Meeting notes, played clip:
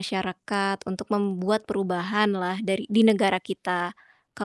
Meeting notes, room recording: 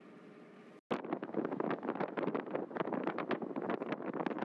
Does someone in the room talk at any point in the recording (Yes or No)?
No